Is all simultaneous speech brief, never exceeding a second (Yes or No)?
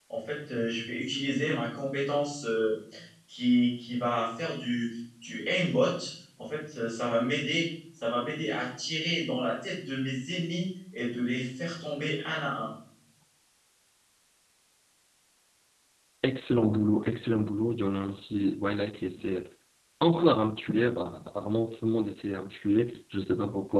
Yes